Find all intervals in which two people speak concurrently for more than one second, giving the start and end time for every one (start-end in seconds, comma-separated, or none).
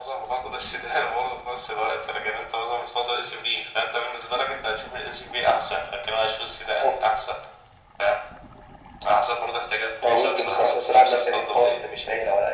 10.0-11.9